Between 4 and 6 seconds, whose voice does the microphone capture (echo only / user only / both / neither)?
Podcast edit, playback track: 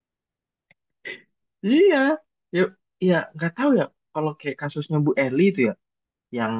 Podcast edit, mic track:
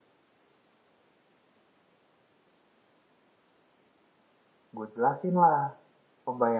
user only